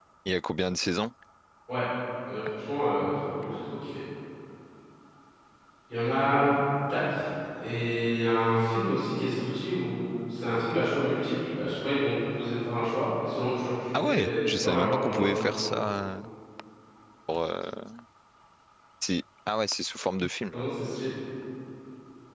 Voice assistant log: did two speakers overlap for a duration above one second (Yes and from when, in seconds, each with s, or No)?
Yes, from 13.9 s